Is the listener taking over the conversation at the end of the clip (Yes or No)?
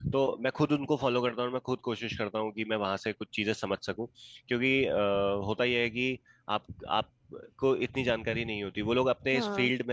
No